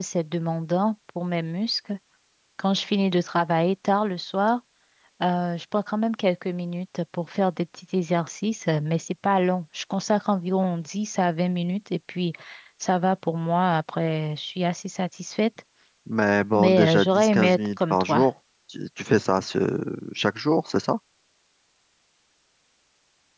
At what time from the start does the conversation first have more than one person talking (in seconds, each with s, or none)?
16.5 s